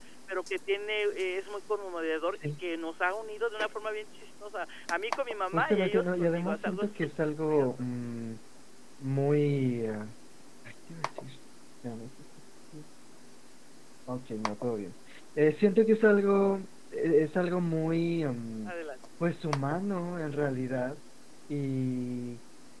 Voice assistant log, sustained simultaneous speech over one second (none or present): present